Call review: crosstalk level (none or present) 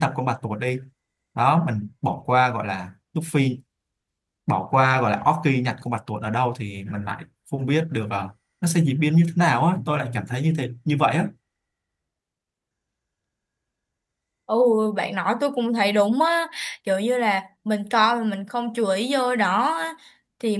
none